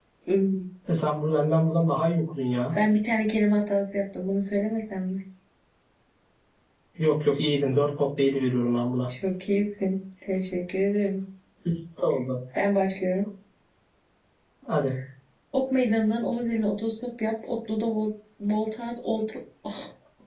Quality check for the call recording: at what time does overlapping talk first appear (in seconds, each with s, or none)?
none